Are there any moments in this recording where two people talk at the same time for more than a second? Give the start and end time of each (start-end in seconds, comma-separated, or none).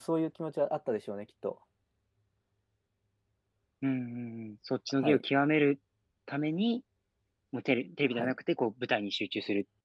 none